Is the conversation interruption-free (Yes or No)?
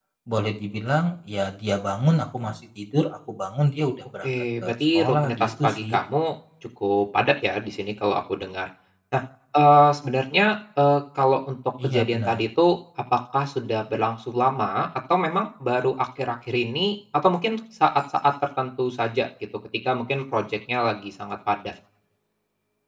No